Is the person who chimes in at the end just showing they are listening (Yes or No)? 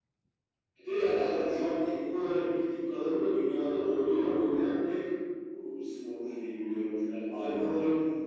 Yes